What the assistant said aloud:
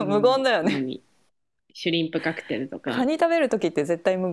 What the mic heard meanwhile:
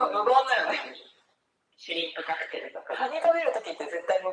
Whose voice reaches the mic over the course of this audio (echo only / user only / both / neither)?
echo only